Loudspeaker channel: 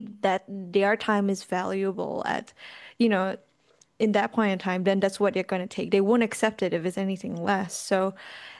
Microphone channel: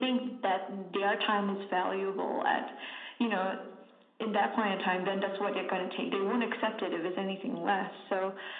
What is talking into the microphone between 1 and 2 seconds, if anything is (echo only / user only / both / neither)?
echo only